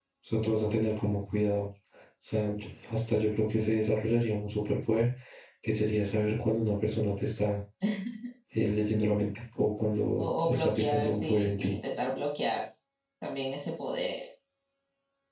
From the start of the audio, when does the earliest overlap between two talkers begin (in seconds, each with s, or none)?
10.2 s